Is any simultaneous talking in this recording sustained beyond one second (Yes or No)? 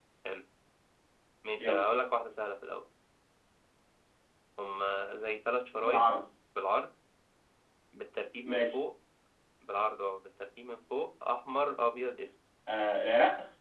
No